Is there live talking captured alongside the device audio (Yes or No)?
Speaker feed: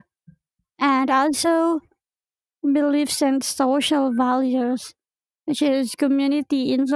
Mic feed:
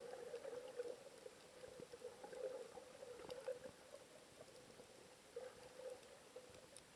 No